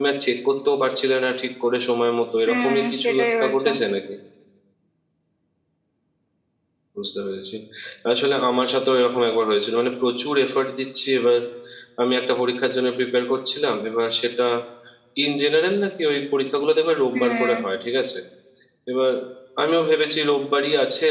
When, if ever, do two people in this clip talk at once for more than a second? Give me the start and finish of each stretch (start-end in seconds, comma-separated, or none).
2.4-3.7